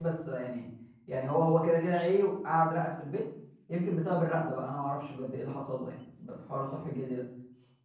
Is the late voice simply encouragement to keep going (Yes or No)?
Yes